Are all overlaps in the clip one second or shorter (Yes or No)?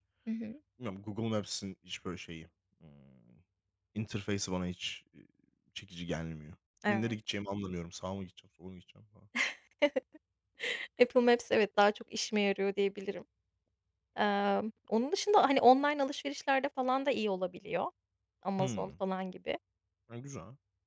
Yes